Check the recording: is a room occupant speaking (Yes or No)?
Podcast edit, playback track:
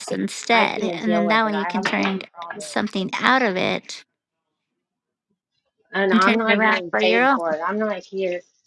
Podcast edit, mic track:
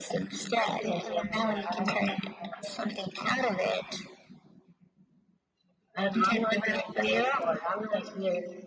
No